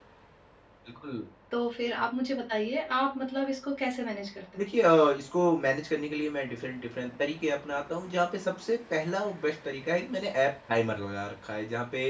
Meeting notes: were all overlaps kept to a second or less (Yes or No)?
Yes